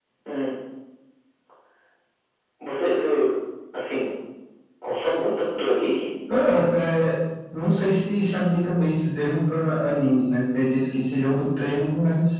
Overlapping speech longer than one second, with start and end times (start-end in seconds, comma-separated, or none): none